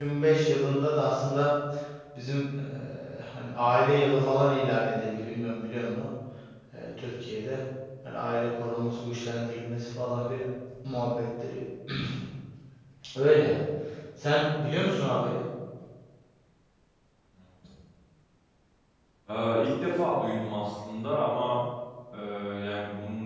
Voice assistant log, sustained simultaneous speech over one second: none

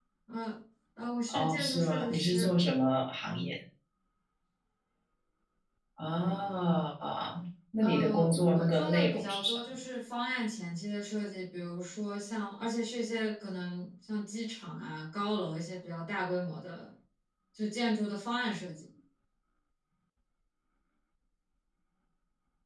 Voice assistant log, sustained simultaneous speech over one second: present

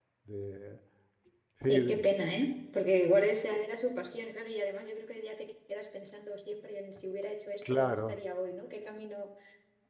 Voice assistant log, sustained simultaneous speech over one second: none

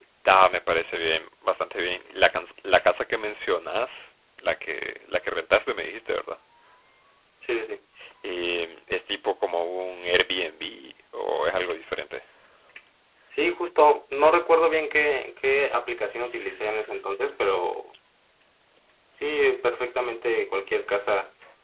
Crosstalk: none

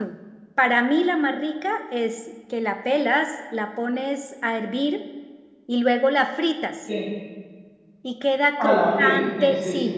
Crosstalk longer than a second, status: present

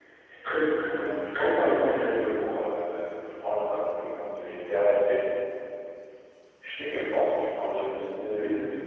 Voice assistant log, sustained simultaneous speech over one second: present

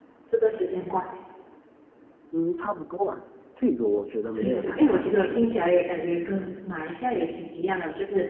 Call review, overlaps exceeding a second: present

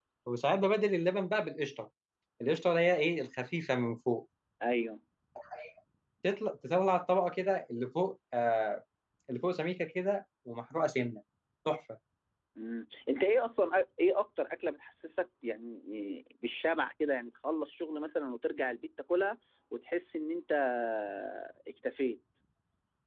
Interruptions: none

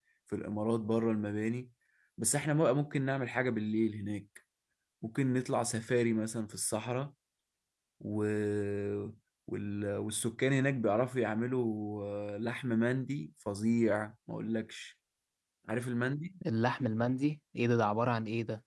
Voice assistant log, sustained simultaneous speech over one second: none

